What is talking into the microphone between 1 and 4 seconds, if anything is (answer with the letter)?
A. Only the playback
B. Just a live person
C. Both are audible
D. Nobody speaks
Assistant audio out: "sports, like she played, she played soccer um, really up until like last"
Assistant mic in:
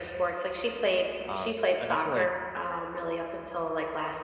C